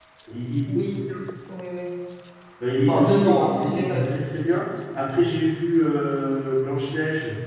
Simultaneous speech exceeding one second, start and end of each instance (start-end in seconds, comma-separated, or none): 2.9-4.2